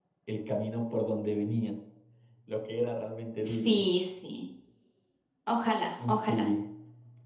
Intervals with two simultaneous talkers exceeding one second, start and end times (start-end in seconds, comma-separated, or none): none